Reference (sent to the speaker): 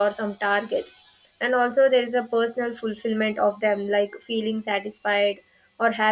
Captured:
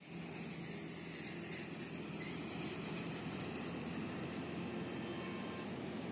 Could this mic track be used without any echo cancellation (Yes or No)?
Yes